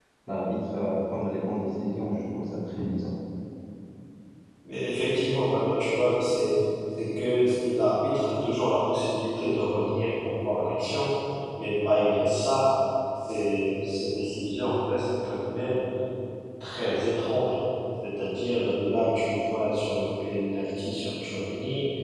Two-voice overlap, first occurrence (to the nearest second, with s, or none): none